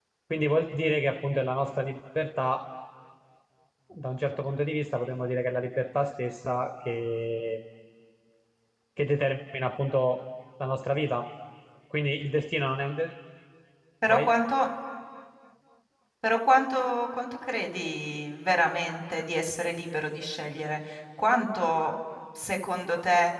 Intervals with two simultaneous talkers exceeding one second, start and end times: none

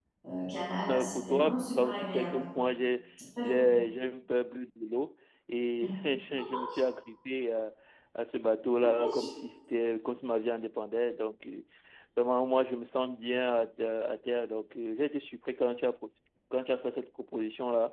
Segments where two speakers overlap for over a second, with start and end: 0.9-2.4

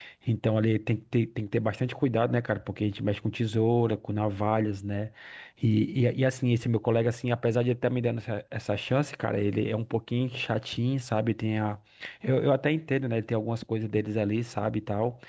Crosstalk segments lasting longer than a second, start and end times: none

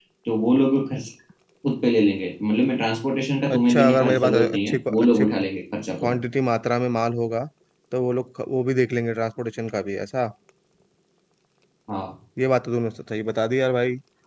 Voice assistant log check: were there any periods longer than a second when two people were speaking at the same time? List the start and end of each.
3.5-5.2

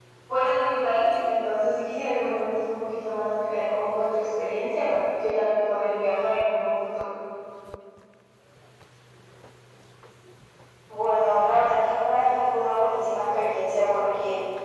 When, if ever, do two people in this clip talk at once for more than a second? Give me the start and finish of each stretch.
none

